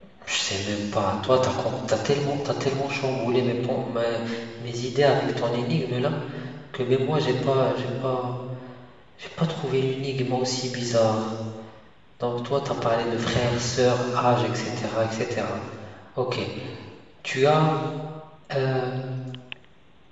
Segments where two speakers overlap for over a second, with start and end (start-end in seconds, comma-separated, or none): none